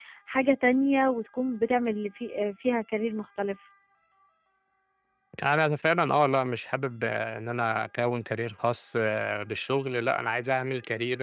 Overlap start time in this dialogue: none

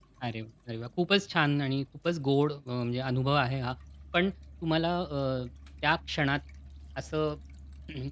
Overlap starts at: none

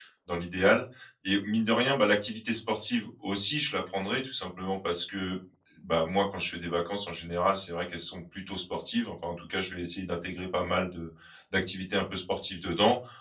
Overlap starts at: none

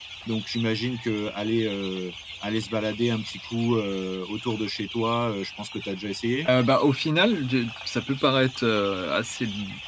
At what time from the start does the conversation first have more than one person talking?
none

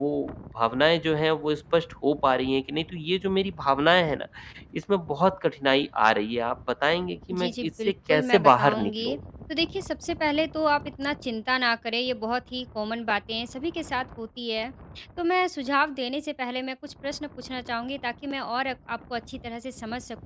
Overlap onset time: 7.3 s

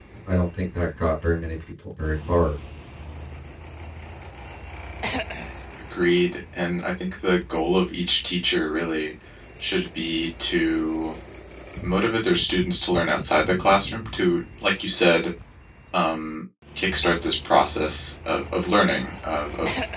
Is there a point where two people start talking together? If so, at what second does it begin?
none

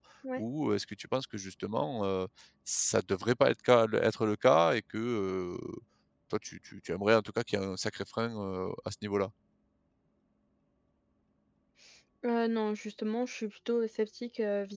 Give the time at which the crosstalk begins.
none

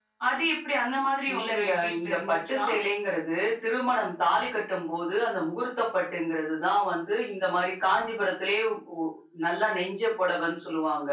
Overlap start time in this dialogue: 1.3 s

